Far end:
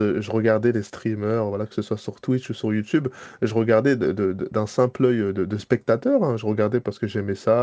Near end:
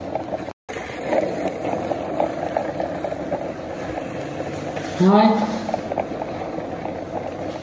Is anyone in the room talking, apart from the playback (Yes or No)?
Yes